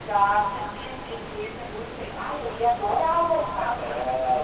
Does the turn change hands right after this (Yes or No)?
Yes